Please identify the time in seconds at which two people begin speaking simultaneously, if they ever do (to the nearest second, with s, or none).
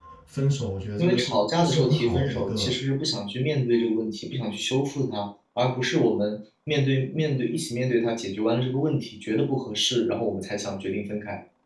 1 s